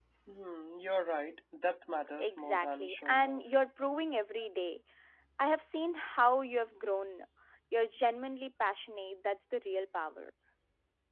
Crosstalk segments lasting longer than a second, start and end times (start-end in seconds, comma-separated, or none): 2.2-3.4